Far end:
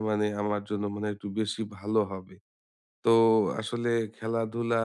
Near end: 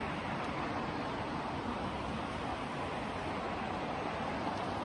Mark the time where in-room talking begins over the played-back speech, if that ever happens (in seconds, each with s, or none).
none